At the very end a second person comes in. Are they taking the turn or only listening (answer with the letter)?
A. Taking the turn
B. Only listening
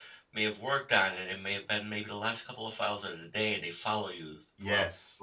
B